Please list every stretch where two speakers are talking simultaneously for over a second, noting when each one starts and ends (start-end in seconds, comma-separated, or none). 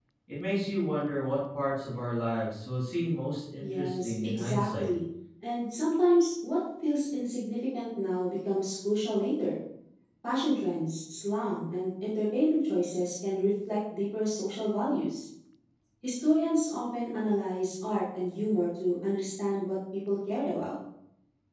3.6-4.9